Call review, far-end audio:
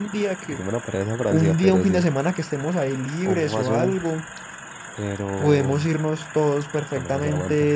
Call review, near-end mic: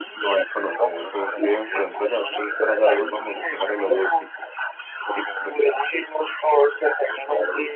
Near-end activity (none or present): present